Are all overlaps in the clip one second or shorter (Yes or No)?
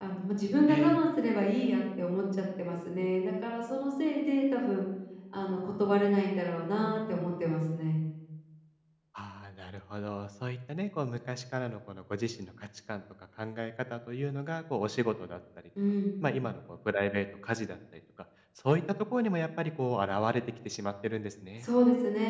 Yes